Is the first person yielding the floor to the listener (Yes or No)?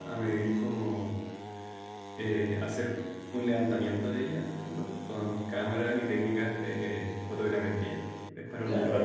Yes